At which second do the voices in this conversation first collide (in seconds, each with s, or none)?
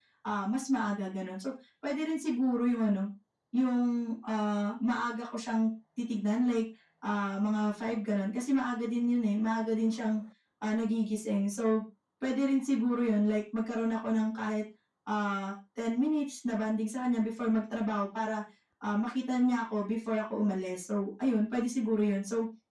none